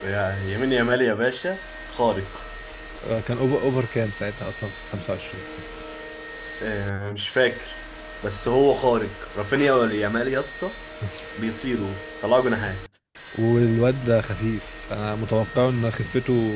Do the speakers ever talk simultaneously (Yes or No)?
No